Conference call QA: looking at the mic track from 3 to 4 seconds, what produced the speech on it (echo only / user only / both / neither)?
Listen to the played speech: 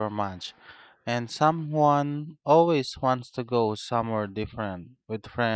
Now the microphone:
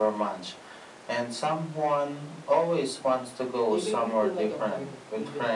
both